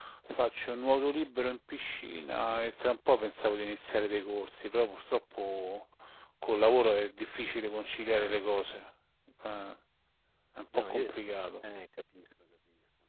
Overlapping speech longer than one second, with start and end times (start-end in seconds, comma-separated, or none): none